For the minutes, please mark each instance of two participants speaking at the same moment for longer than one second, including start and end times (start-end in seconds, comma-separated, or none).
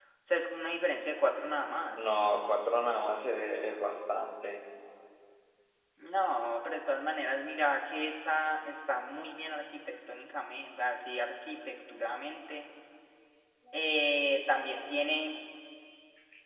none